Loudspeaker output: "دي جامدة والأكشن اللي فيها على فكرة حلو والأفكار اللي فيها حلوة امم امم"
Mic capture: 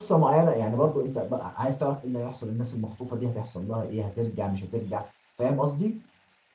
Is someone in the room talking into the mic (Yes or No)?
Yes